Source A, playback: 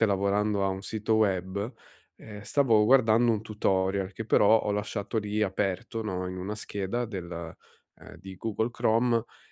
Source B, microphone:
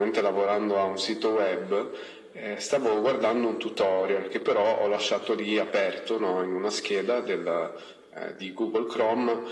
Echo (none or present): present